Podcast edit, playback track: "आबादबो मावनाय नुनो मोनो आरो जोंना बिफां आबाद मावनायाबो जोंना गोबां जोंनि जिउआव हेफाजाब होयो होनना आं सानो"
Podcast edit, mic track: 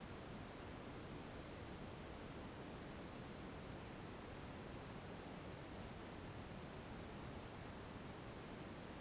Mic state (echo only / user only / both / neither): neither